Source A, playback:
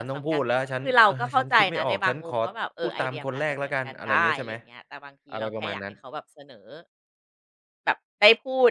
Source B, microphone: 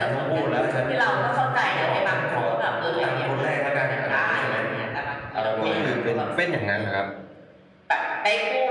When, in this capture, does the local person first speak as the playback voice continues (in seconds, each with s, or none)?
5.6 s